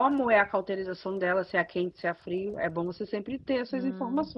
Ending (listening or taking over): taking over